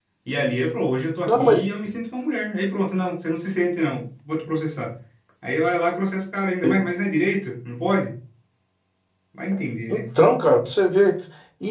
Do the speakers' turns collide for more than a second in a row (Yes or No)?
No